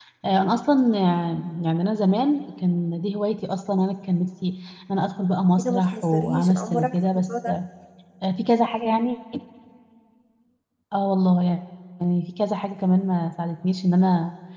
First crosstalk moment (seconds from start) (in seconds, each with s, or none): 5.6 s